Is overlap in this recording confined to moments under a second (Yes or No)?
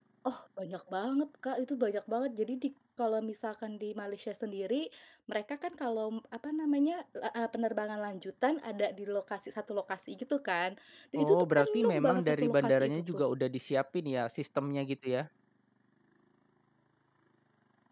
No